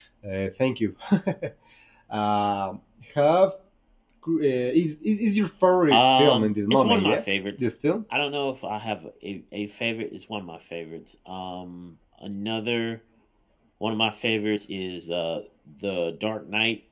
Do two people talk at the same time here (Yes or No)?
Yes